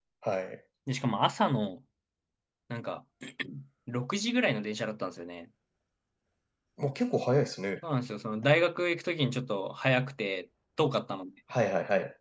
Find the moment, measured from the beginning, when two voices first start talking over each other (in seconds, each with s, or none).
none